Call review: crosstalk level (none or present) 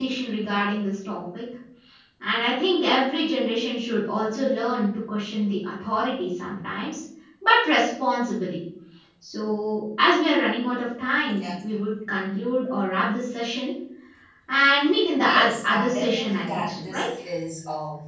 present